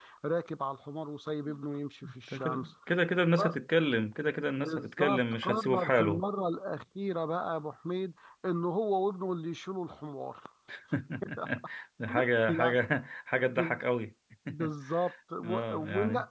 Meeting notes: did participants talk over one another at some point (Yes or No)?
Yes